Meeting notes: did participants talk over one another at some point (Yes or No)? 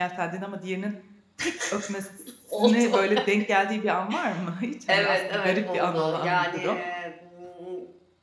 Yes